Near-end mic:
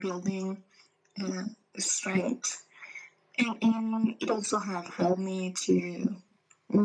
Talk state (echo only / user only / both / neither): echo only